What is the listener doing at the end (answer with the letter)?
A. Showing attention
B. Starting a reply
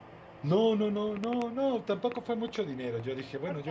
A